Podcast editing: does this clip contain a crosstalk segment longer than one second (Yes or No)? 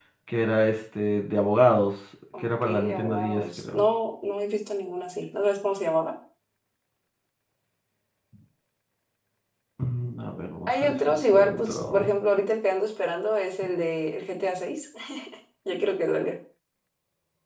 Yes